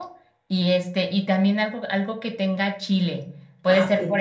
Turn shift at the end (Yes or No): No